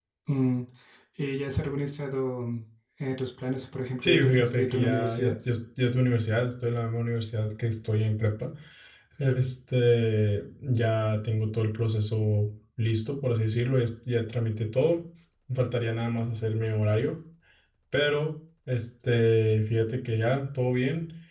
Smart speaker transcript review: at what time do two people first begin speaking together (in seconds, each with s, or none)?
4.0 s